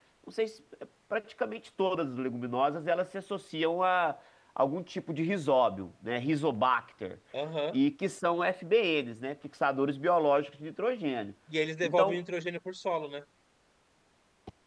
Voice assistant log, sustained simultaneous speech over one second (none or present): none